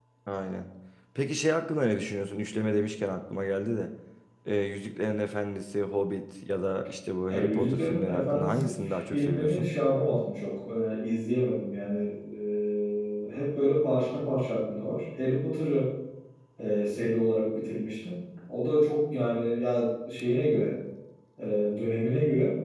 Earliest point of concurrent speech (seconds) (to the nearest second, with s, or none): 7 s